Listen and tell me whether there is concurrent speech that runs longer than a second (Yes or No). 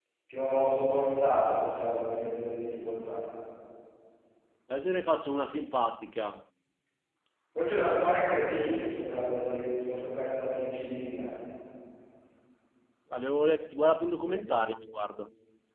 No